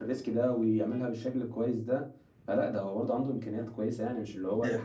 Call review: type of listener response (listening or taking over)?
taking over